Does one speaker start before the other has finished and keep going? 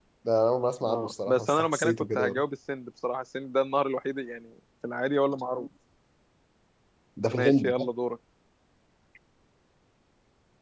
Yes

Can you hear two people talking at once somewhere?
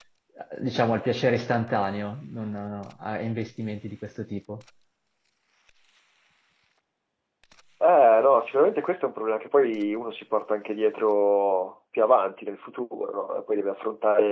No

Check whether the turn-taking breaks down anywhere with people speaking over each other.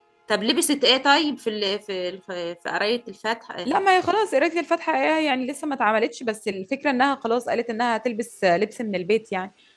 No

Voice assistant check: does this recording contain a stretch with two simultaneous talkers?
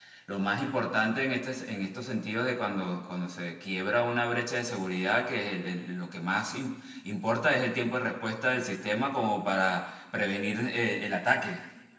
No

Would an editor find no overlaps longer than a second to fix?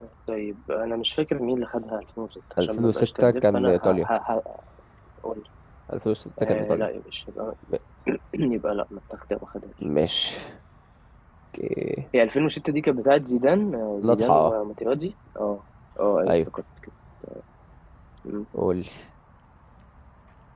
No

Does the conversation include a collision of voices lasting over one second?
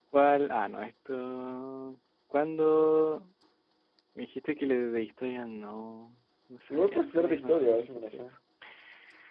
Yes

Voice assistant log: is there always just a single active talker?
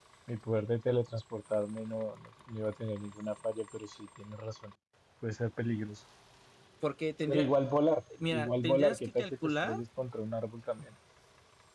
No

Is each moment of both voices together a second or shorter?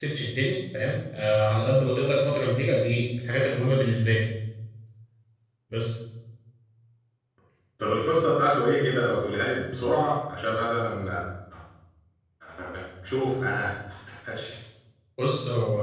Yes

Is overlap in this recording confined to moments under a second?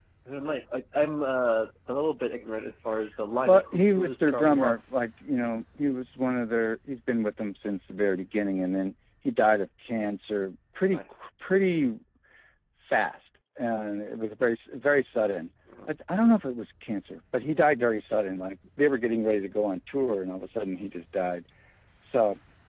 No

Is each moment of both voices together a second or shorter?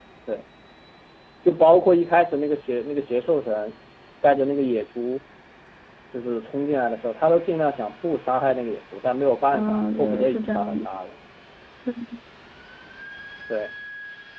No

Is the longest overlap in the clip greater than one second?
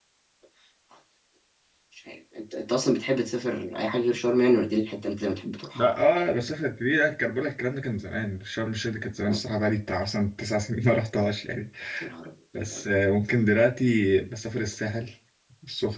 No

